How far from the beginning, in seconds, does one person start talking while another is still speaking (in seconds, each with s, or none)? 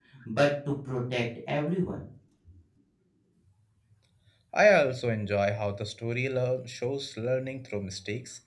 none